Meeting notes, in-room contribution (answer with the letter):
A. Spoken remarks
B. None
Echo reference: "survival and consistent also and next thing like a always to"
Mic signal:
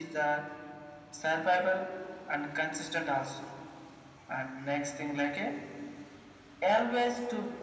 B